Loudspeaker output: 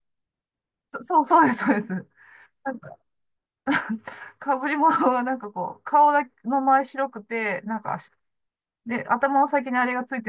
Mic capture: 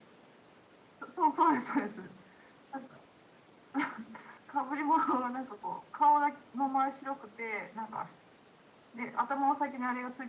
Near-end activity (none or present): none